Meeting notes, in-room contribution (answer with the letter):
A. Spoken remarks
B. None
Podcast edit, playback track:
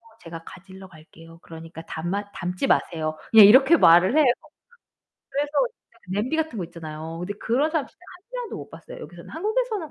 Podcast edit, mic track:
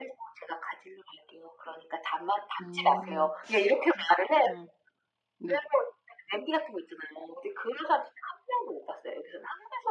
A